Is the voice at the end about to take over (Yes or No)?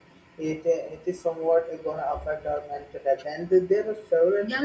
Yes